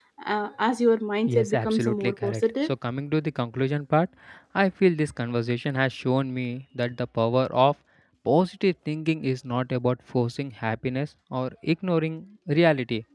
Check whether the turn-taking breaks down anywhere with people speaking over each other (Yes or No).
Yes